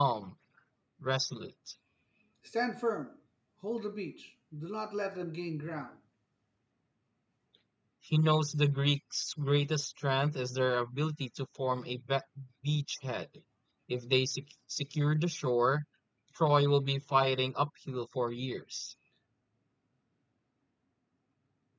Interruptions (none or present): none